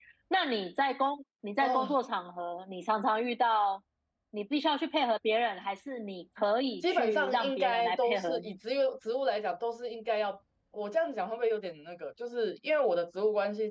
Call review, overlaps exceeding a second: present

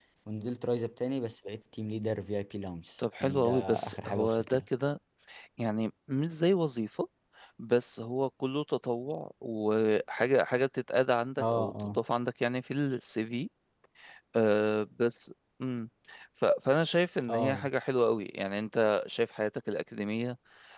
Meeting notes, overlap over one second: present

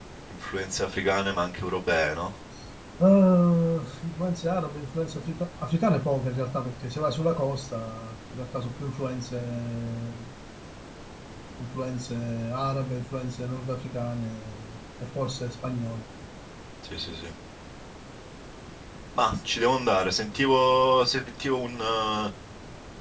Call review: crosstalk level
none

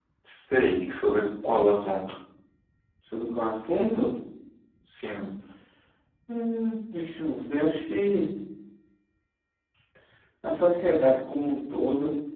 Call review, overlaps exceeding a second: none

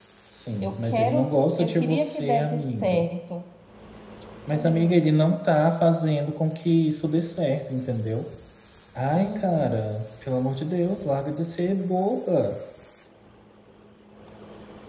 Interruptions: present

